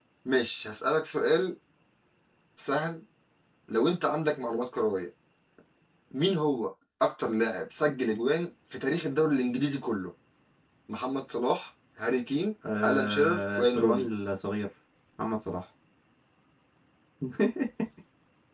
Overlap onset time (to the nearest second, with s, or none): 13 s